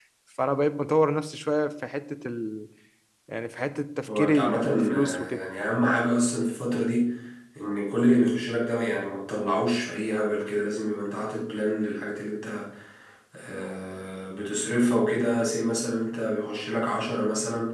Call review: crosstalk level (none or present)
present